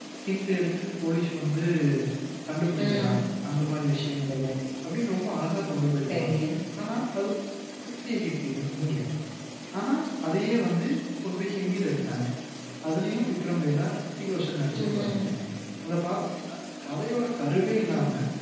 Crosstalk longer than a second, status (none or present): none